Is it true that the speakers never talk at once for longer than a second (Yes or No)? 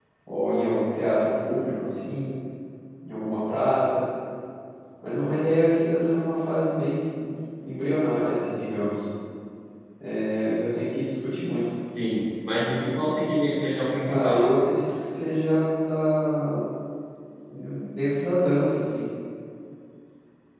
Yes